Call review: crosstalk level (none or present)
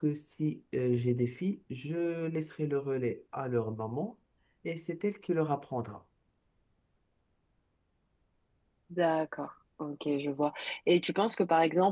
none